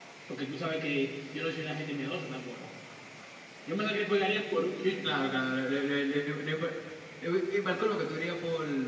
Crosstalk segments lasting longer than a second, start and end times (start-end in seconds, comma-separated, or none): none